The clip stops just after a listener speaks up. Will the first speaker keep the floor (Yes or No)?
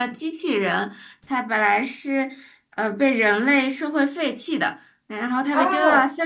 Yes